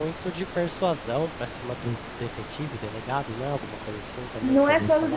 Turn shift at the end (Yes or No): Yes